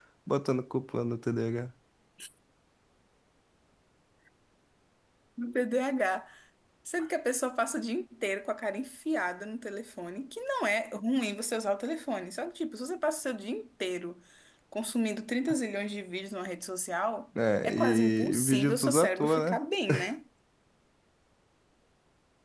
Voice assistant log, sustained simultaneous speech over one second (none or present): present